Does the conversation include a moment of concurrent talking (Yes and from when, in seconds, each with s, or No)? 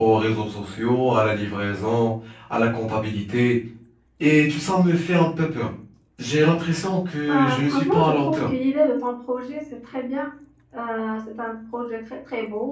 Yes, from 7.3 s